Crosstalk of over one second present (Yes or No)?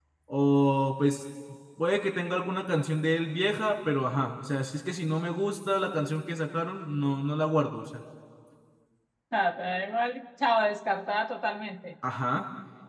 No